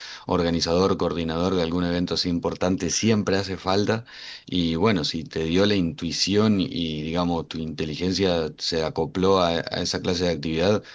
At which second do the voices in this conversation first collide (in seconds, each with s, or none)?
none